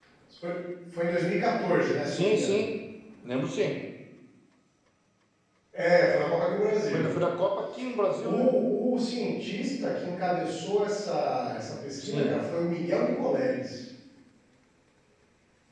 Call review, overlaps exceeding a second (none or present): none